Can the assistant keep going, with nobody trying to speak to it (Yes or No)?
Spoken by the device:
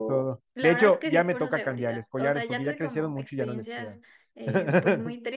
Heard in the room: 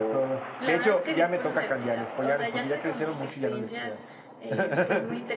Yes